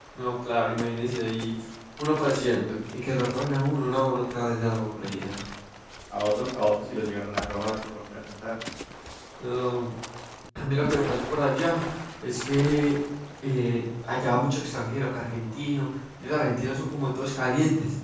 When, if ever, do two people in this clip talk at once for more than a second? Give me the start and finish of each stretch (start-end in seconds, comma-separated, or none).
none